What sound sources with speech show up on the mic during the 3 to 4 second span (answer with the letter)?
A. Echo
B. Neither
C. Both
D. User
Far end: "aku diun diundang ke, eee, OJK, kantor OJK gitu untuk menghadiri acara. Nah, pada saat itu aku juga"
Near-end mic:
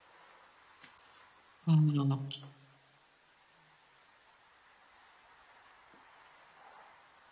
B